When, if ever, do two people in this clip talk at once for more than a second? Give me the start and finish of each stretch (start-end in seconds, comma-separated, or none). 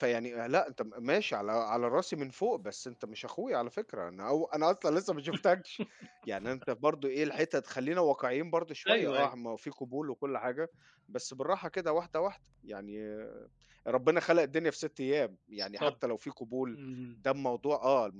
none